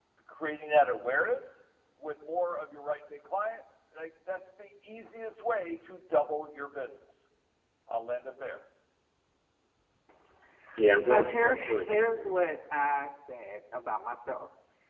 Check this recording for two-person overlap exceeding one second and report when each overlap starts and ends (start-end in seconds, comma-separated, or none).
11.0-12.3